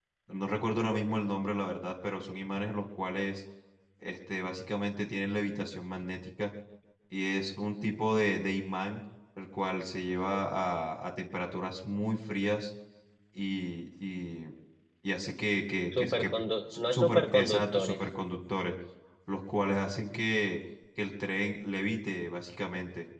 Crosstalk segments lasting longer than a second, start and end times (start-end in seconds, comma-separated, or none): 16.8-18.0